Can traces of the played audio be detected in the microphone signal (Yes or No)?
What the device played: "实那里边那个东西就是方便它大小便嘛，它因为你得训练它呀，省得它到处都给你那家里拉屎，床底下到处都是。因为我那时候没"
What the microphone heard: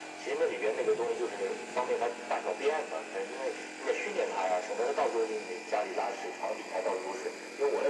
Yes